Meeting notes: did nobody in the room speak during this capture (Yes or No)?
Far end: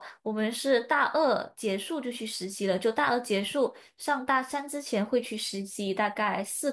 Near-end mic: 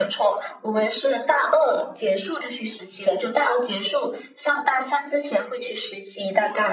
Yes